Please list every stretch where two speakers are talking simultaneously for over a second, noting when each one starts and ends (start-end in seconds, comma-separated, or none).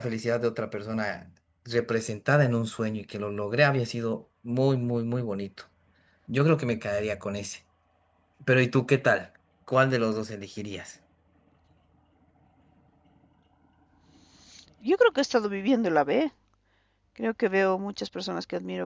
none